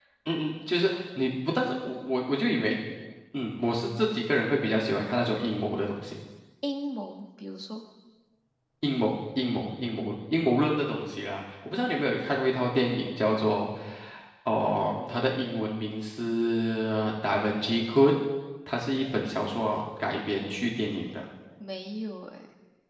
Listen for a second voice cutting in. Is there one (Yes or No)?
No